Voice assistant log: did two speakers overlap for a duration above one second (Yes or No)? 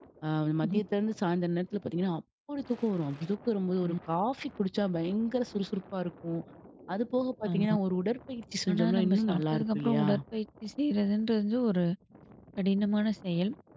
Yes